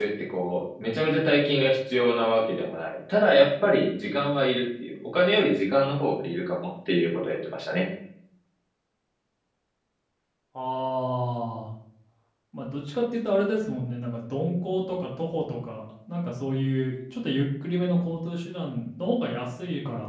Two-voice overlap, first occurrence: none

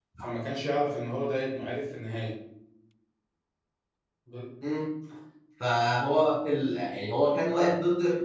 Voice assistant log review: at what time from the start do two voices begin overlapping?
none

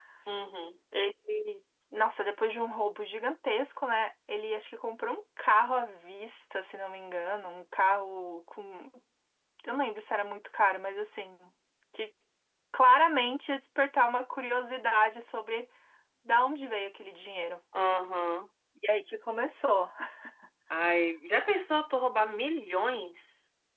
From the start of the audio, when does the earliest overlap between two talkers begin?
none

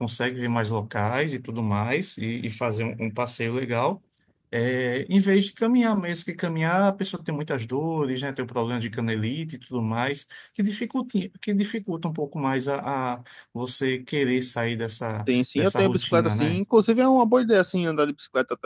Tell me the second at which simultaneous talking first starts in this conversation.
15 s

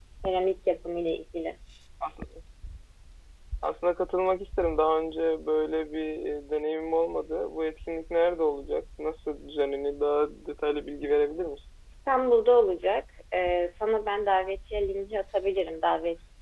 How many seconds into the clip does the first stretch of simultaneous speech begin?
none

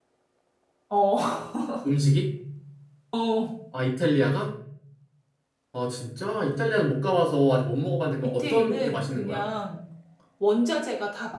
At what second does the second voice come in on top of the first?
8 s

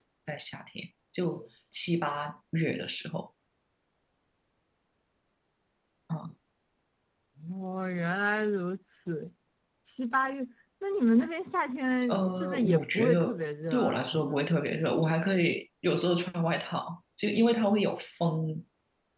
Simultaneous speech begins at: 12 s

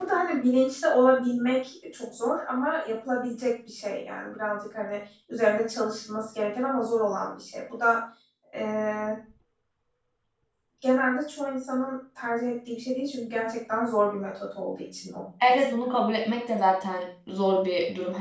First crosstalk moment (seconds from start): none

